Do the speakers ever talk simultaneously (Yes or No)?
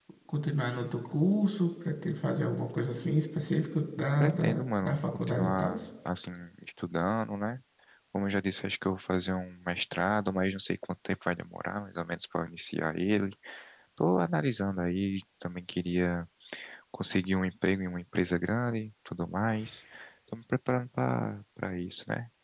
Yes